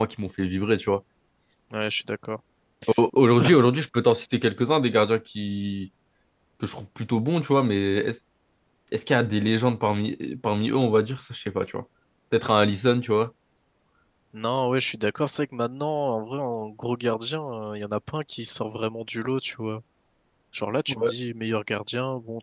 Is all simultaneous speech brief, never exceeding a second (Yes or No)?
Yes